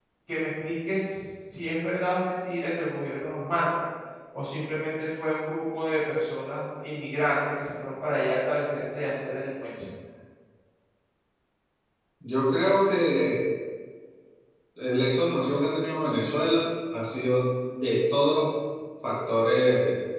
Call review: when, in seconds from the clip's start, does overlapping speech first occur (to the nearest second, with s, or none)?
none